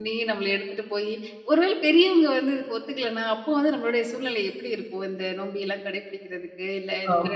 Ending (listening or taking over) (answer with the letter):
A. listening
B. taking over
B